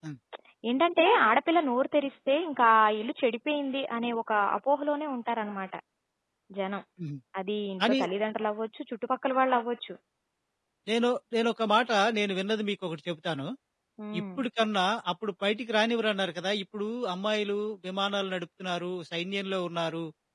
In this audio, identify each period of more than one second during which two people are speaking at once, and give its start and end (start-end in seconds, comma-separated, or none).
none